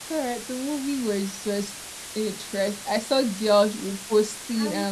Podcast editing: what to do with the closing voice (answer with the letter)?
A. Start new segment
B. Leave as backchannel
B